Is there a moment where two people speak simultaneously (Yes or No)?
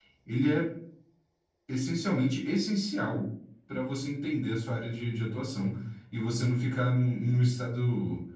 No